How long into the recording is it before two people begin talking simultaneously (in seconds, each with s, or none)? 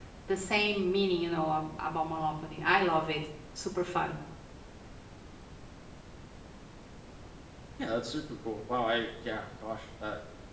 none